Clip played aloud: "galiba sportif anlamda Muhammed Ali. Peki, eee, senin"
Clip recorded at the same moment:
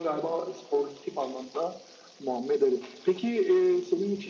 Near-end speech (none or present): none